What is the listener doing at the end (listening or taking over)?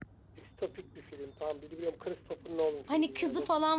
taking over